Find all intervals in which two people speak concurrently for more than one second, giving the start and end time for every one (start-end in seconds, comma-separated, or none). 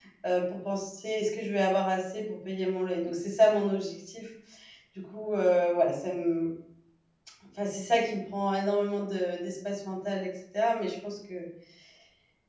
none